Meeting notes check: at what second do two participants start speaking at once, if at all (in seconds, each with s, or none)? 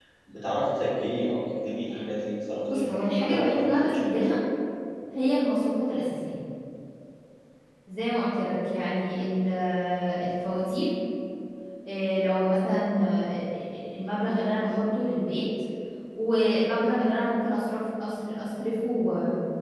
2.7 s